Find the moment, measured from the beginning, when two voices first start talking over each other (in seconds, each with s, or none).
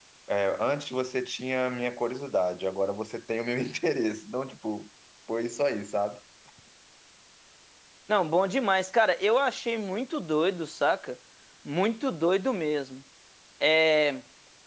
none